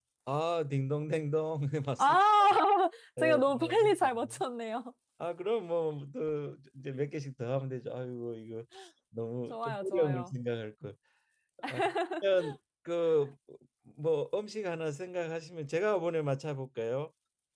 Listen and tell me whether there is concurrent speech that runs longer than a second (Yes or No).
Yes